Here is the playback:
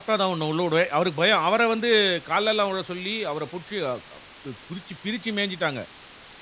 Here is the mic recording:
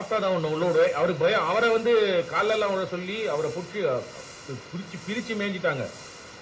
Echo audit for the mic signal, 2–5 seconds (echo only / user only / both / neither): echo only